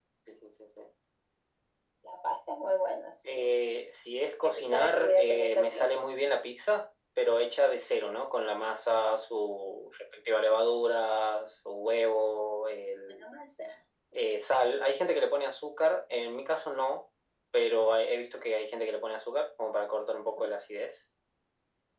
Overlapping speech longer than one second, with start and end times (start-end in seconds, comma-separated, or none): 4.4-5.9